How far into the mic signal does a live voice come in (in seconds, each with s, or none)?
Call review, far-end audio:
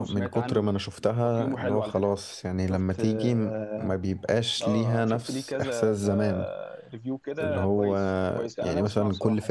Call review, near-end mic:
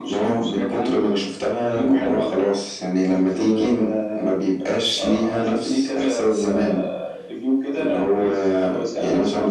none